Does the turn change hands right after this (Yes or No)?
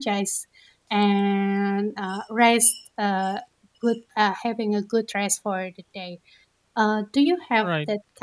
No